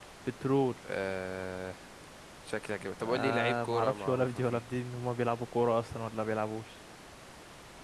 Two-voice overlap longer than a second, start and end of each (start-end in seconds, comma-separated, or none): 3.0-4.6